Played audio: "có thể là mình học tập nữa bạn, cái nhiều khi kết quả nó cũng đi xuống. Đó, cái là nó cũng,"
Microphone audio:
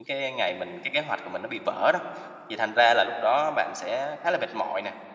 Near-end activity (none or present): present